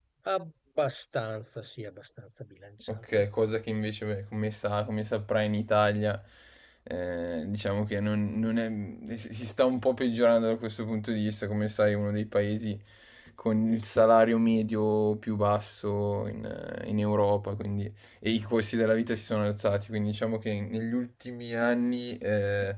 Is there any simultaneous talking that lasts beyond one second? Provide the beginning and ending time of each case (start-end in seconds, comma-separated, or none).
none